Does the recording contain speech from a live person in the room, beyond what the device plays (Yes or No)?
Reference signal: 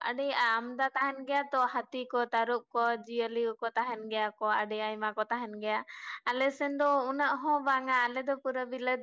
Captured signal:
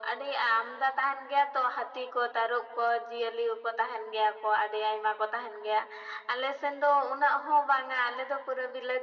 No